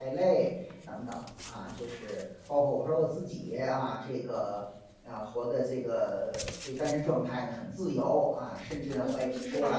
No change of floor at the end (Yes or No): No